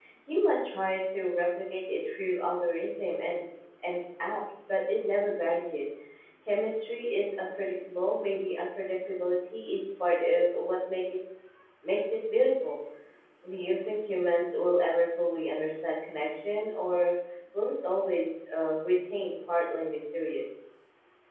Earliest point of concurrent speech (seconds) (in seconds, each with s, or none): none